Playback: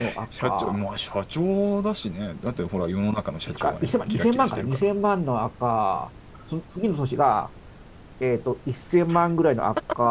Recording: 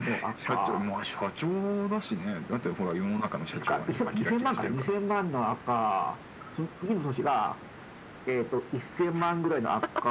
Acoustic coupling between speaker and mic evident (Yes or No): Yes